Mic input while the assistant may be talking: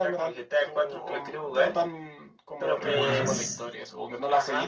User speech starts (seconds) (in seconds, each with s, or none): 2.8 s